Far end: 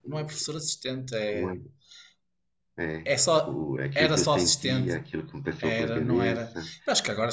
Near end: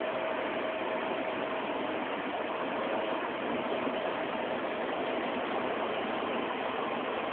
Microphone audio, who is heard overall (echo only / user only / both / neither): neither